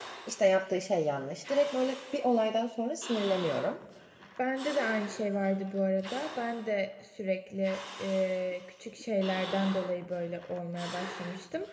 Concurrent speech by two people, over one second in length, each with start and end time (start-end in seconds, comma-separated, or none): none